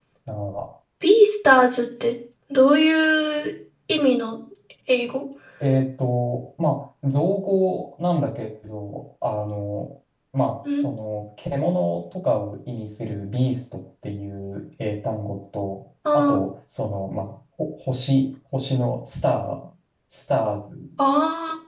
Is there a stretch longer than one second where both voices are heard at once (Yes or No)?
No